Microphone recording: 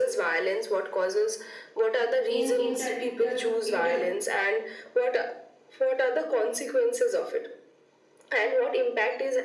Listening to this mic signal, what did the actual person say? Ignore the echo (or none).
in inter inter inter